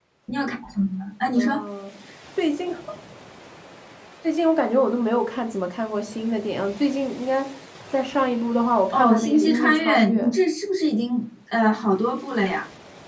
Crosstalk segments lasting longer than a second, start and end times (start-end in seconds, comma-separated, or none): 8.9-10.2